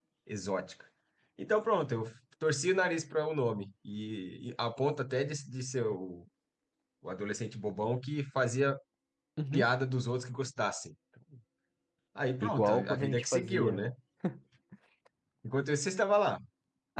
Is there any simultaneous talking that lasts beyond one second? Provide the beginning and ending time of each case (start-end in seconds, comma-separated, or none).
12.4-13.8